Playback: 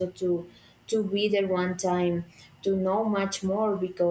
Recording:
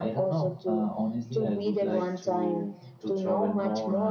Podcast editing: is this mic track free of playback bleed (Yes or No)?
No